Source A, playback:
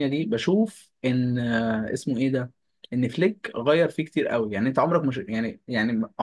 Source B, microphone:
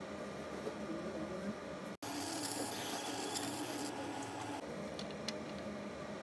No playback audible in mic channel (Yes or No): Yes